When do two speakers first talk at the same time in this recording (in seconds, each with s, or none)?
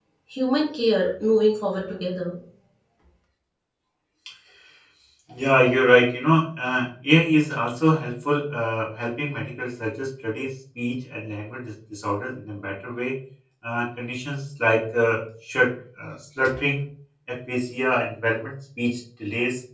none